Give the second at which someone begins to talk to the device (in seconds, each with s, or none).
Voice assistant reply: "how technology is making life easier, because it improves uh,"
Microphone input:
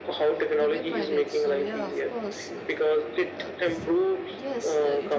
0.6 s